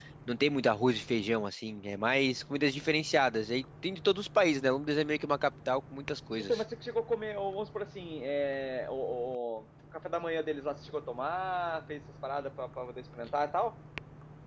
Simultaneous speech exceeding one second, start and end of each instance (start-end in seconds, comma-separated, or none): none